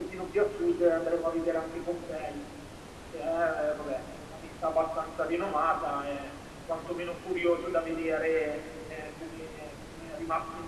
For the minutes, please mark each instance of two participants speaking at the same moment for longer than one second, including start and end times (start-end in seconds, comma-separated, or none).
none